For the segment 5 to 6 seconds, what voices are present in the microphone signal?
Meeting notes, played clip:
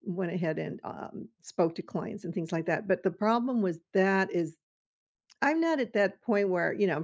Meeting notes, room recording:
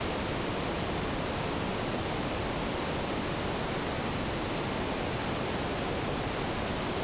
neither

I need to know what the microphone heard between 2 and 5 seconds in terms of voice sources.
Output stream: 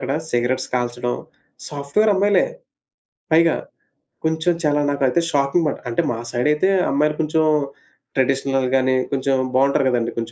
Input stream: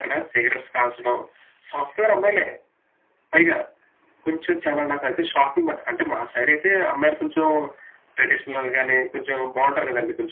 echo only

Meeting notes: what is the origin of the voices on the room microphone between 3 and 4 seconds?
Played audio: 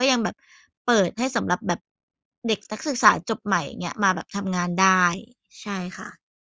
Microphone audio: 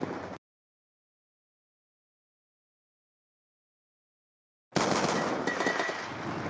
neither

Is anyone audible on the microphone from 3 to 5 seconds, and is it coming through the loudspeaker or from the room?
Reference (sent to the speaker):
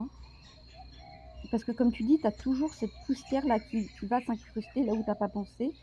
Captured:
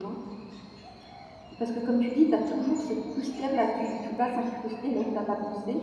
echo only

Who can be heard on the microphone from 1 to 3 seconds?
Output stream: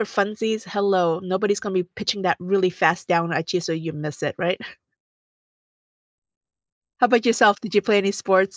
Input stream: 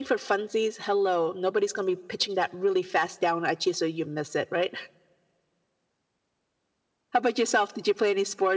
echo only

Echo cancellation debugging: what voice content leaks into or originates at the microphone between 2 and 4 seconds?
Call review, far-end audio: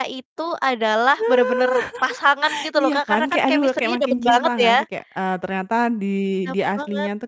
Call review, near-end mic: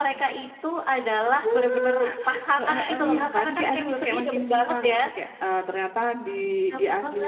both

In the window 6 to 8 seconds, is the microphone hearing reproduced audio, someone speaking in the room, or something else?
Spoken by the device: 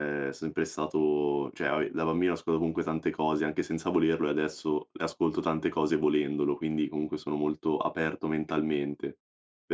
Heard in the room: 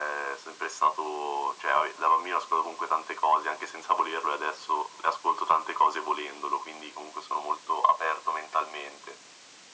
echo only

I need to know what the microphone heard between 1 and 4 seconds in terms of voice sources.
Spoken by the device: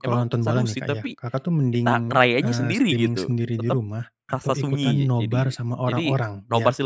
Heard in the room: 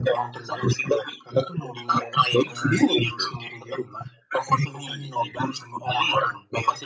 echo only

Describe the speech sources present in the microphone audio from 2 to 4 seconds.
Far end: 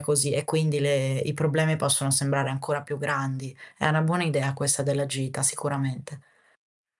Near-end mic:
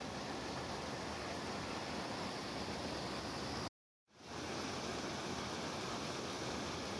neither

